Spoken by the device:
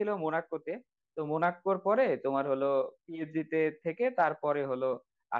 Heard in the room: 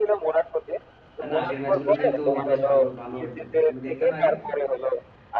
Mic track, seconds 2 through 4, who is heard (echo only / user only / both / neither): both